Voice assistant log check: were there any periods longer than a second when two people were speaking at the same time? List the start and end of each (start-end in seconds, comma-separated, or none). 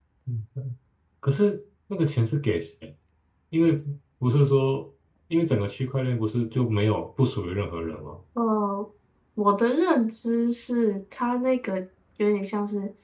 none